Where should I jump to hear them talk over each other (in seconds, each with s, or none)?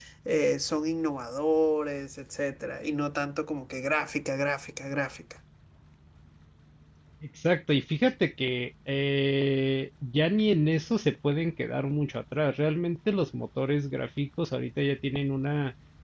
none